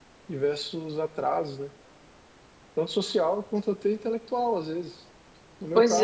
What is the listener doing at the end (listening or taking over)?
listening